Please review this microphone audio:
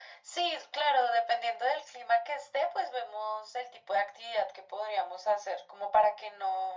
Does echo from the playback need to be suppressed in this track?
Yes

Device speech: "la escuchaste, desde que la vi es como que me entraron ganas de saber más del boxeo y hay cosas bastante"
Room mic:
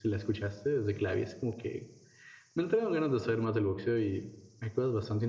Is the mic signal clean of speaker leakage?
No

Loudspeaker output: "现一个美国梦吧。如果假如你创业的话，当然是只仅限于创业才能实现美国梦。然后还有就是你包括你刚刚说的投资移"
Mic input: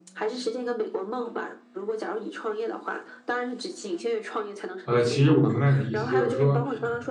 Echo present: Yes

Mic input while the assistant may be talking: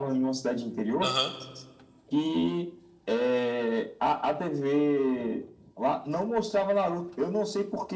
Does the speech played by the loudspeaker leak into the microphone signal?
Yes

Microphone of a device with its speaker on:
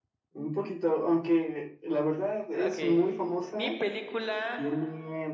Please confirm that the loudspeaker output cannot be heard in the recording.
No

